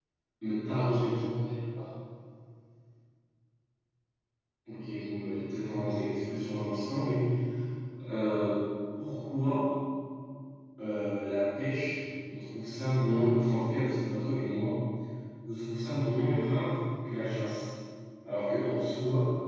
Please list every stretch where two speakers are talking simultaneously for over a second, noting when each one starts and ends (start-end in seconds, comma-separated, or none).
none